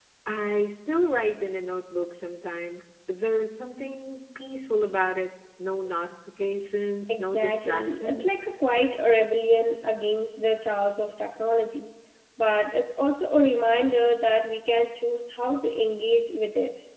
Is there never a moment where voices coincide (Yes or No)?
No